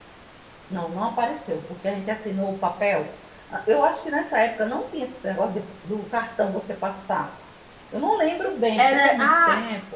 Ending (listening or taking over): taking over